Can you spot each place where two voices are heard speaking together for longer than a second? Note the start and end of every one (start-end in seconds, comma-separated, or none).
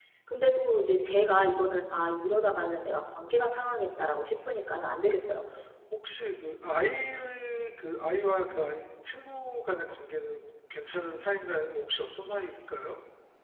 none